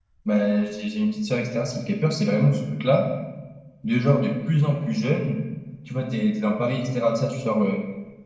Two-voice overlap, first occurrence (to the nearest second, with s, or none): none